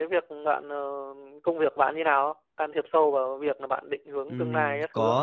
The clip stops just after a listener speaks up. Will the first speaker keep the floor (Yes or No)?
No